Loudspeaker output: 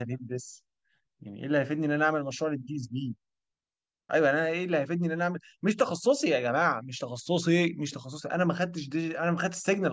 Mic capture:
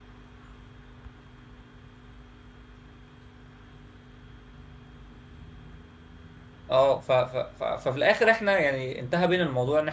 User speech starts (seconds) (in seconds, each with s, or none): 6.7 s